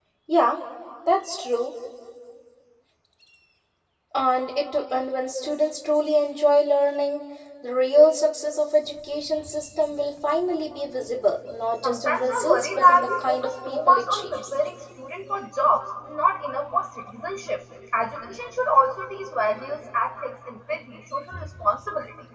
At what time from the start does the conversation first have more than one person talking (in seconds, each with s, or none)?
11.8 s